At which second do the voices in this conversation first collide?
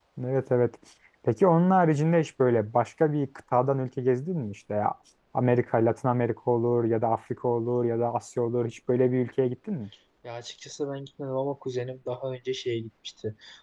none

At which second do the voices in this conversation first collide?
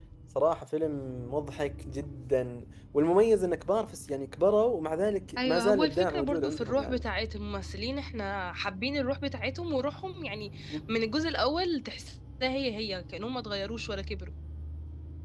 5.4 s

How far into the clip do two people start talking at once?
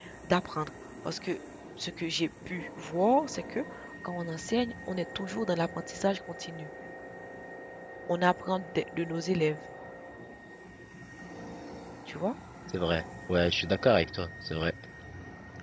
none

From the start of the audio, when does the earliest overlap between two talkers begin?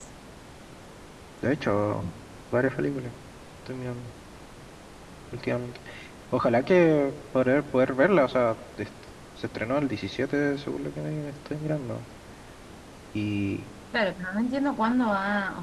none

